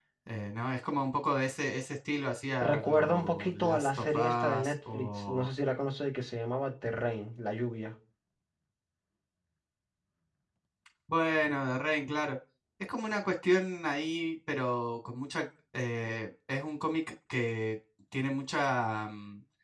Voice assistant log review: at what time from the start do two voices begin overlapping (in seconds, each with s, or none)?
2.6 s